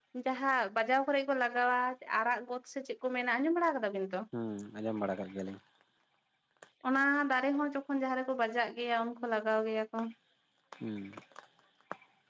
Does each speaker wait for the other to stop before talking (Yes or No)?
Yes